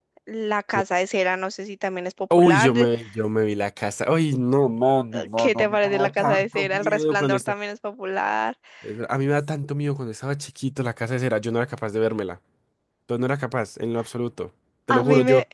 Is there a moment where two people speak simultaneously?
Yes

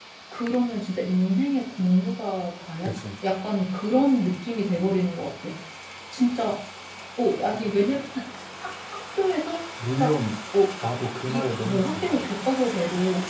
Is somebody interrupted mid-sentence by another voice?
Yes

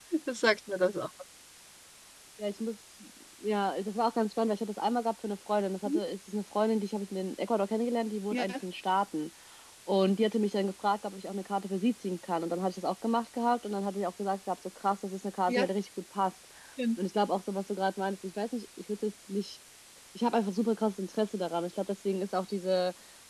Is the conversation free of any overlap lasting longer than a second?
Yes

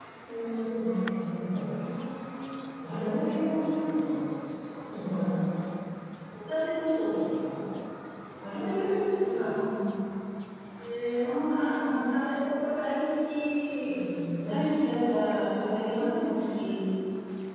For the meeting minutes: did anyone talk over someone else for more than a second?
Yes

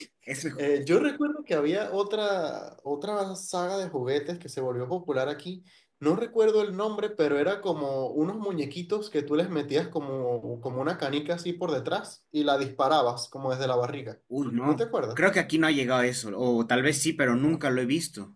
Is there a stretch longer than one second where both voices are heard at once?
No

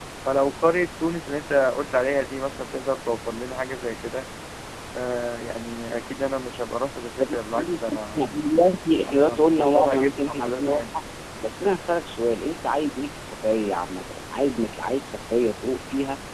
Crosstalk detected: Yes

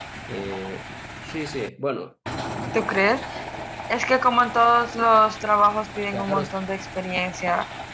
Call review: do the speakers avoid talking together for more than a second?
Yes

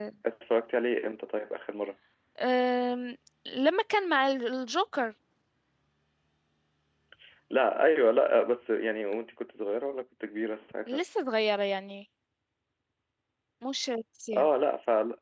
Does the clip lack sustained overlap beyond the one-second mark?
Yes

